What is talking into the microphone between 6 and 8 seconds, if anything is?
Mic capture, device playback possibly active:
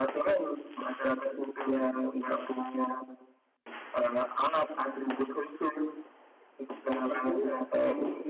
both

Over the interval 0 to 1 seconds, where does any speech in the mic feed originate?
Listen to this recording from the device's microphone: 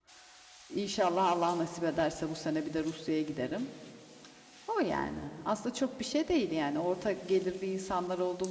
user only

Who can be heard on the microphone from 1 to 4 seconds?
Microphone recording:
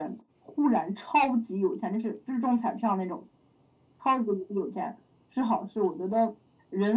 echo only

